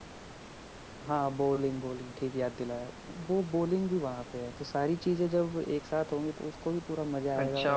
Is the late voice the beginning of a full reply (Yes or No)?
Yes